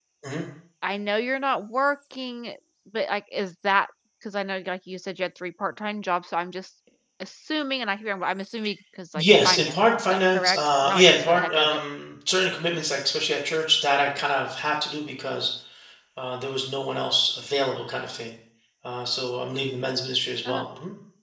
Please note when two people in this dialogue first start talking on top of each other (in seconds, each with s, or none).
9.2 s